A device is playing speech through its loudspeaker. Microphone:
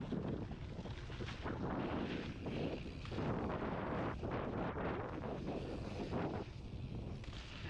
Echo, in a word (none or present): none